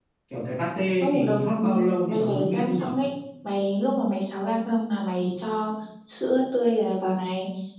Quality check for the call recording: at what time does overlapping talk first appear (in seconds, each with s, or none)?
1.0 s